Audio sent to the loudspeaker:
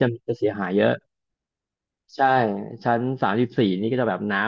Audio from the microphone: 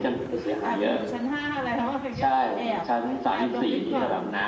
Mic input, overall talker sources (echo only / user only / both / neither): both